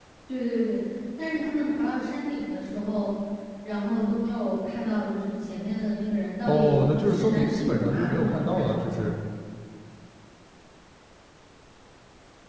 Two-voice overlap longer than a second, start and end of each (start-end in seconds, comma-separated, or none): 6.5-8.8